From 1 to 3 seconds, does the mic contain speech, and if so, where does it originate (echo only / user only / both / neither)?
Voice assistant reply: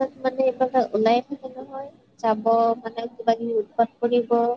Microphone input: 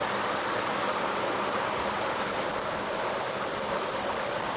neither